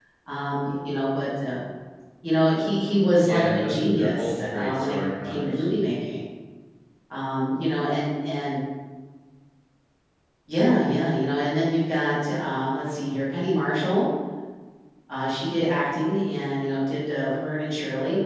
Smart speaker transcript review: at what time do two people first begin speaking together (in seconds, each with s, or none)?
3.2 s